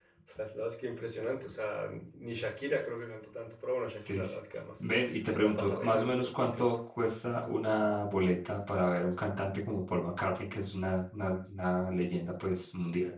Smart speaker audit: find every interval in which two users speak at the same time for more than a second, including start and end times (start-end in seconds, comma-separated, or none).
5.3-6.7